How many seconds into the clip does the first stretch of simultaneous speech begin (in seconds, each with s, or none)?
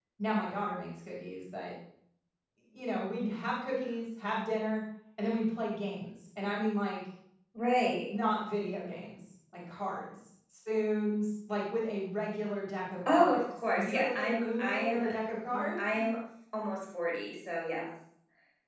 13.1 s